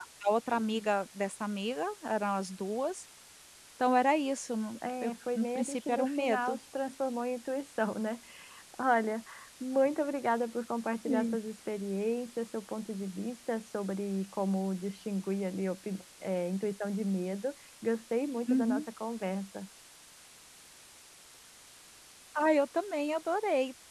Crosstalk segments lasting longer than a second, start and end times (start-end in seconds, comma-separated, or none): 5.0-6.6